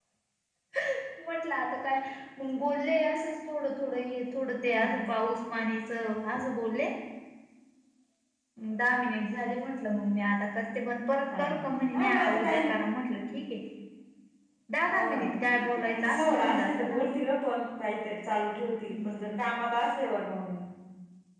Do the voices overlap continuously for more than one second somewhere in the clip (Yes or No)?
Yes